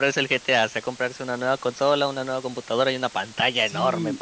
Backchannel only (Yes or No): No